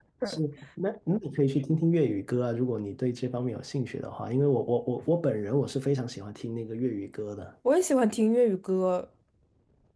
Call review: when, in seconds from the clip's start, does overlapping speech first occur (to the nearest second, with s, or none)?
none